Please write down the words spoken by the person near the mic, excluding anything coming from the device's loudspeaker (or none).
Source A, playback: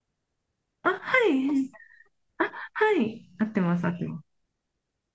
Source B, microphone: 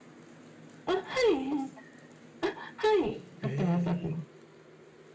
へえ。